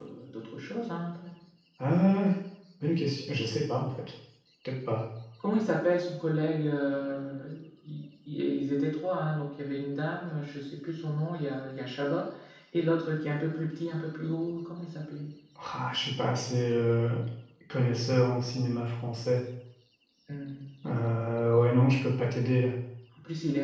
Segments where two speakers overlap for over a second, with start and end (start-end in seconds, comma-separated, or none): none